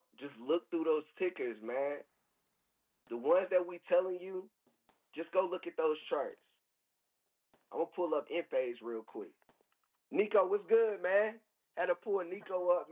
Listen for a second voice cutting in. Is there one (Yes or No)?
No